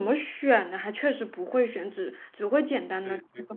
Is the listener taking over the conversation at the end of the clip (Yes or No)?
Yes